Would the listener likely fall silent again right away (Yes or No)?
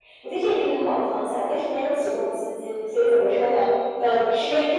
Yes